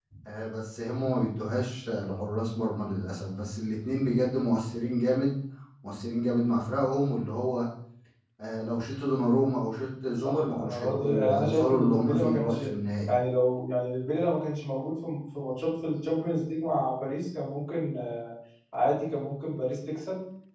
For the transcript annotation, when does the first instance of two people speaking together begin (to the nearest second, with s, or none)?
10 s